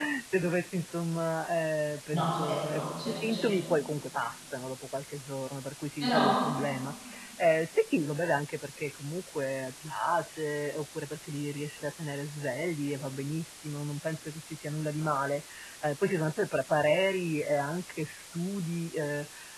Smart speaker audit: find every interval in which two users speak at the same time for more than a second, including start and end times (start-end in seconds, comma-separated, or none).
2.1-3.5